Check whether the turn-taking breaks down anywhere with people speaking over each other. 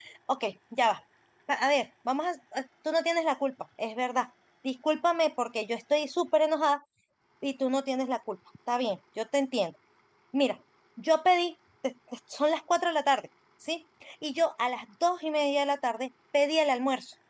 No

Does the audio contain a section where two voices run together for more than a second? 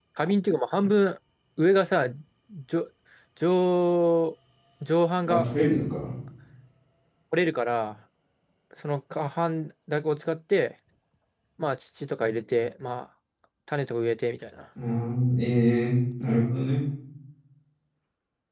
No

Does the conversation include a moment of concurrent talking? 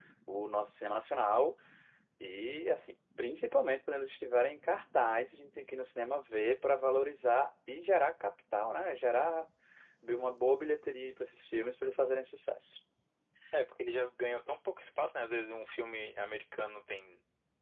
No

